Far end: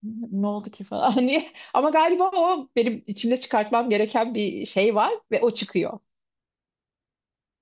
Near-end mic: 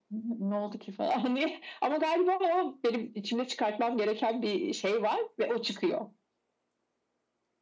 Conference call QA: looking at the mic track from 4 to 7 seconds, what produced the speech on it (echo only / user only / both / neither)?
echo only